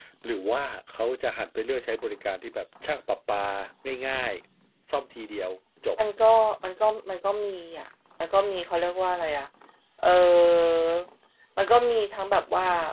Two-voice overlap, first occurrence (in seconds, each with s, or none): none